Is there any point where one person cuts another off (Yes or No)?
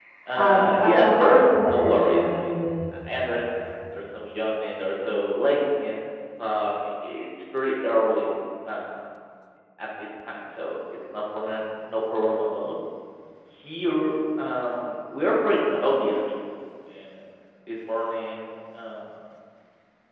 Yes